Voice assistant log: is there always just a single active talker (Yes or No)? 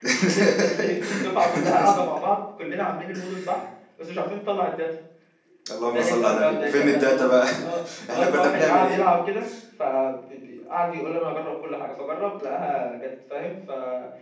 No